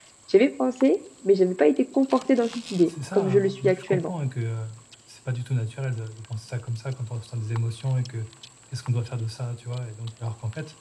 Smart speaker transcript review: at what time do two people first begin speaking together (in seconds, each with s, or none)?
2.9 s